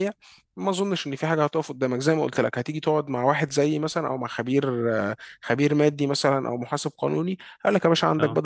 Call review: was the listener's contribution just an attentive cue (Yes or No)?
Yes